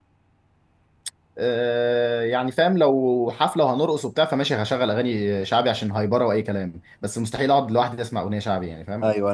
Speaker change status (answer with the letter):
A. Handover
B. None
A